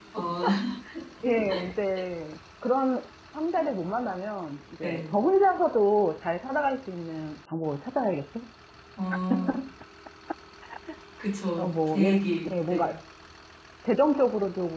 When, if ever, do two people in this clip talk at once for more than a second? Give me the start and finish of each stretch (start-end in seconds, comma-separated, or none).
11.6-12.9